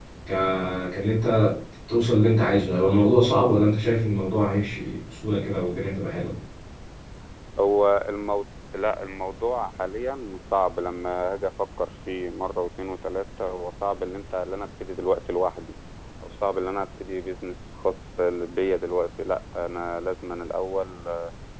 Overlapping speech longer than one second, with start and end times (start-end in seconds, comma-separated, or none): none